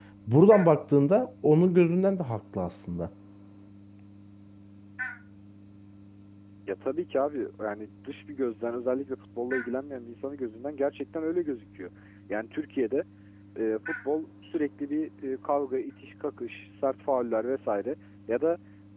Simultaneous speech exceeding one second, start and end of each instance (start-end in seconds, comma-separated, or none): none